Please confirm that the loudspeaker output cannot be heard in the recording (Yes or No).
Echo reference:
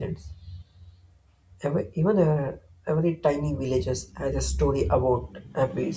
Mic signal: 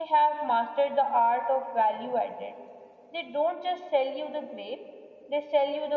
Yes